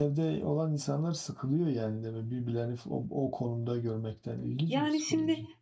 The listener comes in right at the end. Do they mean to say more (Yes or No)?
Yes